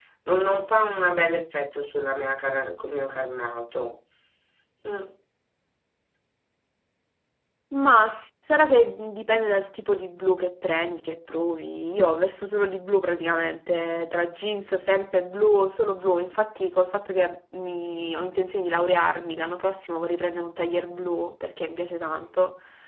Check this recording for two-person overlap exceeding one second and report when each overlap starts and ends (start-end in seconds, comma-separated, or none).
none